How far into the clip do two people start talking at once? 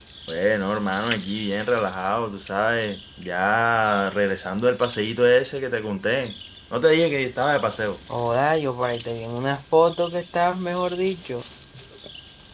none

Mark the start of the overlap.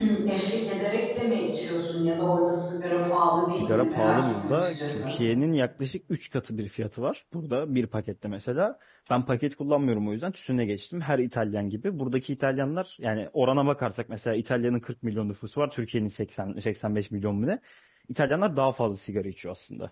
4 s

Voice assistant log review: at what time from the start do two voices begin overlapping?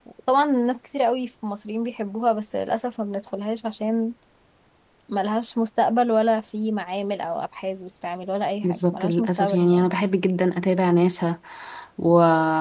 9 s

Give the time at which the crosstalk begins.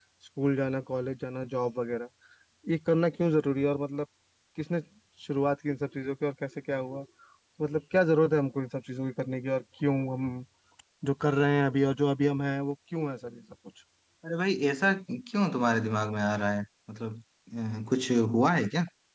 none

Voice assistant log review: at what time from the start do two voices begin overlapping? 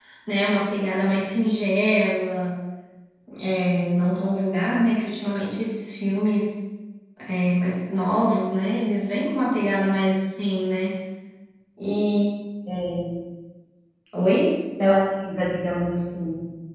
none

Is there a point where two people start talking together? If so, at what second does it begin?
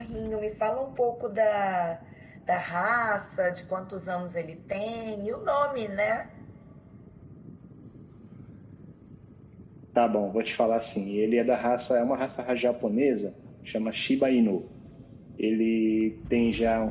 none

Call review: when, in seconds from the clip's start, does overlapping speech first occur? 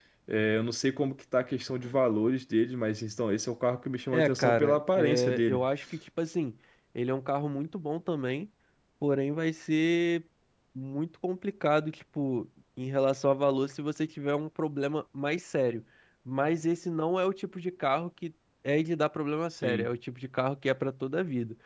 4 s

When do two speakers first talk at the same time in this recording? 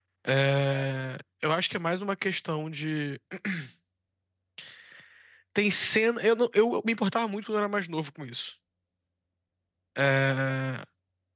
none

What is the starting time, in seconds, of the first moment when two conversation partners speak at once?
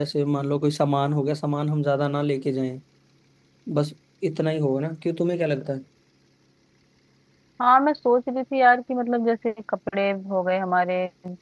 none

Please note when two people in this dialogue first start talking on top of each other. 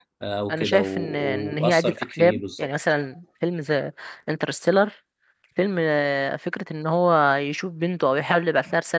1 s

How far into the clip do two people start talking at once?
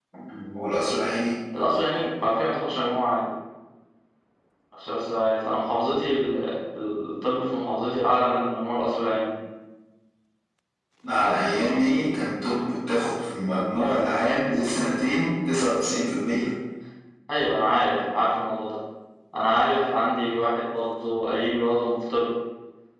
none

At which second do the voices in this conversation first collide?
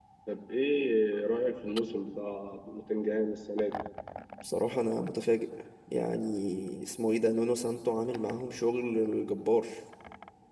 none

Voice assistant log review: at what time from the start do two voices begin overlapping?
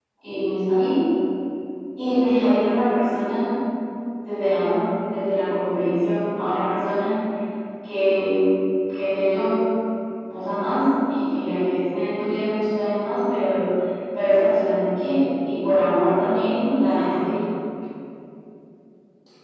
none

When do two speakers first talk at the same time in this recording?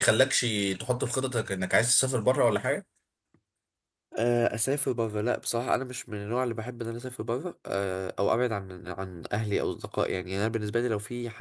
none

